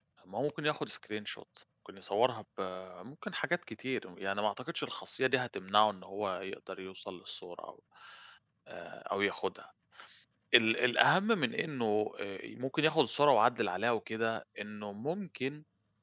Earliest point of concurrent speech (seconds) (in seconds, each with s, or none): none